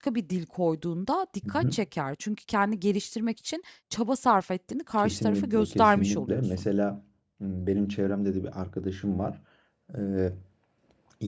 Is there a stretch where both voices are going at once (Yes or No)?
Yes